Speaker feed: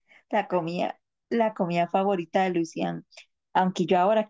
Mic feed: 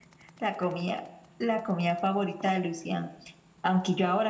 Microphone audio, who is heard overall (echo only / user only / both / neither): echo only